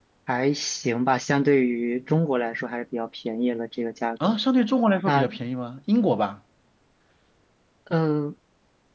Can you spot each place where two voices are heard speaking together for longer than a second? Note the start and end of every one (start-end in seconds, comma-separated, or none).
none